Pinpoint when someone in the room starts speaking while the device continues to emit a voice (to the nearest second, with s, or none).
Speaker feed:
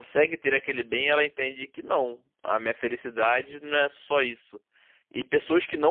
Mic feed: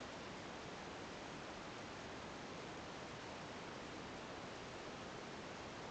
none